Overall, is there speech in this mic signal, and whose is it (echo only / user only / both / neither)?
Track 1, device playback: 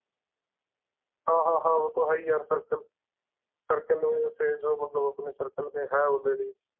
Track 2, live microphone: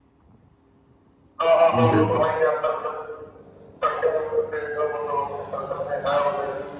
both